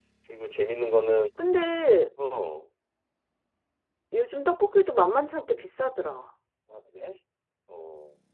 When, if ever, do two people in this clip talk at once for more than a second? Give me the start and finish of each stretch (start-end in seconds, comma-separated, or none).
none